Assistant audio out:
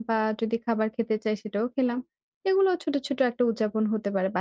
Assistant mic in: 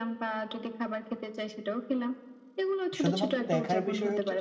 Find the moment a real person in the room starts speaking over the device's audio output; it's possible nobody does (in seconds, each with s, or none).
3.0 s